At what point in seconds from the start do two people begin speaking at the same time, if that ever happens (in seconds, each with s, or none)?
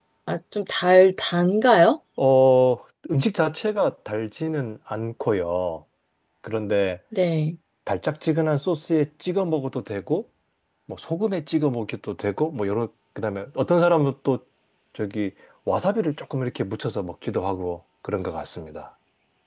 none